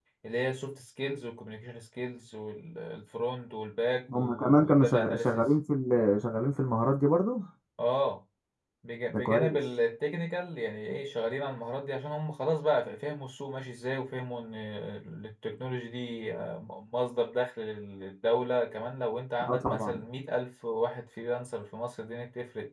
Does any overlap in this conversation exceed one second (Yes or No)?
Yes